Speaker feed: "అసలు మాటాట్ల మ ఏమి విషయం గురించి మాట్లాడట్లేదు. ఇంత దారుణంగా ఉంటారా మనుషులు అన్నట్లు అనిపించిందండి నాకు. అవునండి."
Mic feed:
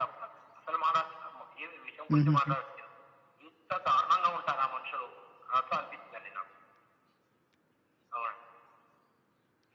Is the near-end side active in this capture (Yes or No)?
Yes